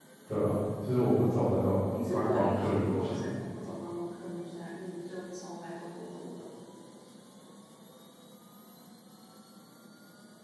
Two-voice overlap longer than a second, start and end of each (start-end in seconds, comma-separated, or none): 1.9-3.2